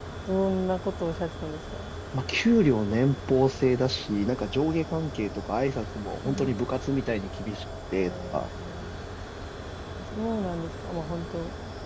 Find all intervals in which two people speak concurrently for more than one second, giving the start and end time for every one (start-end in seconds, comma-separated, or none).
none